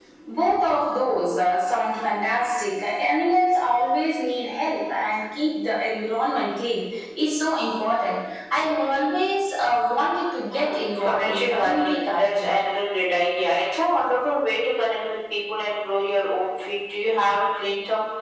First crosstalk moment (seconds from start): 10.5 s

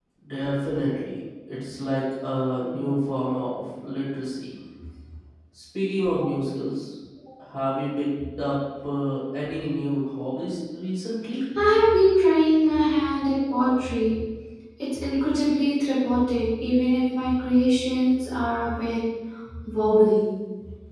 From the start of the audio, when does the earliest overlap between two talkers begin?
none

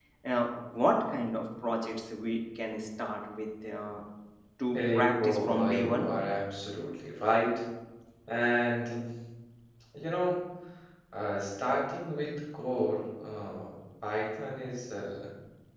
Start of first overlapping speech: 4.7 s

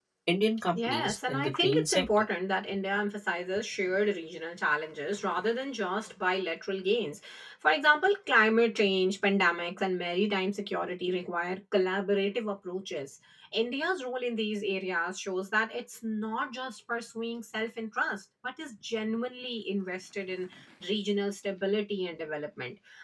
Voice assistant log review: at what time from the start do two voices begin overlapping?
0.8 s

